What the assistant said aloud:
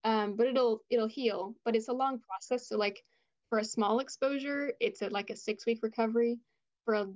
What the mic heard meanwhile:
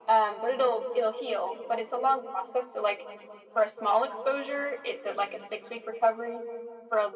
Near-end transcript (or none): none